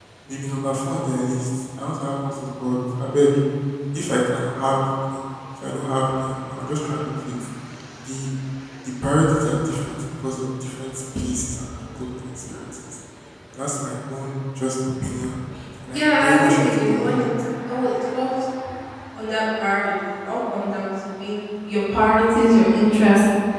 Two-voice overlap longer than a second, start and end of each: 15.9-17.2

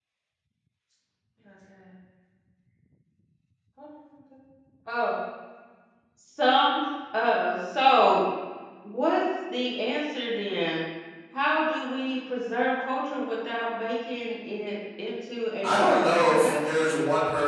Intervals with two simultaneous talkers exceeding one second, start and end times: 15.6-17.0

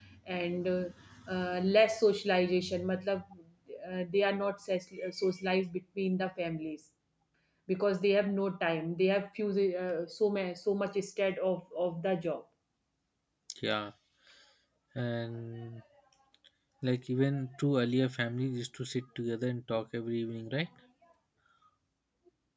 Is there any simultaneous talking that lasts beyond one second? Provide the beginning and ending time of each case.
none

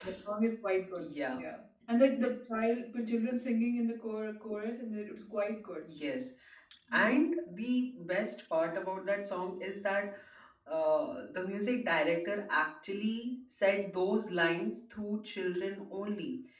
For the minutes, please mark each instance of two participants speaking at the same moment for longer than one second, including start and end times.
none

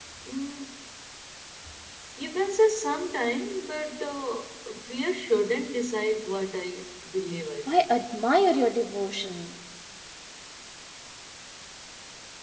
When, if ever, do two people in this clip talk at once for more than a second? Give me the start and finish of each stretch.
none

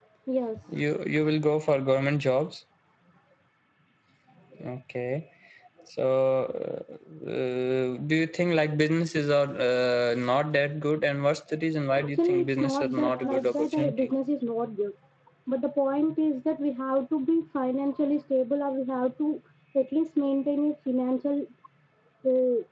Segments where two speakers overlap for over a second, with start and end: 12.0-14.1

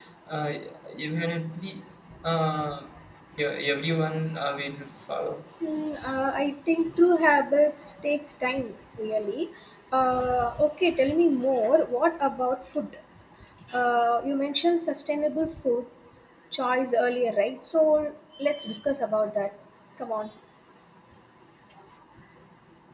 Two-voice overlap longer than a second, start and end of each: none

